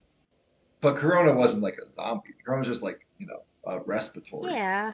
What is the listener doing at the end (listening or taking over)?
taking over